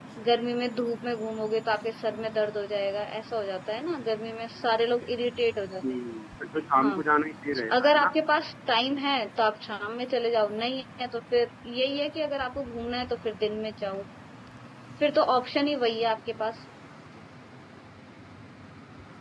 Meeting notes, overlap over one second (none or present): none